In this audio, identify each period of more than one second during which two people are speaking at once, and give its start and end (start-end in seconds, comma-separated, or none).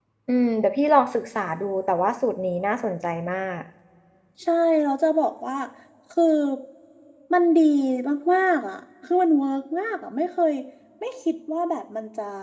none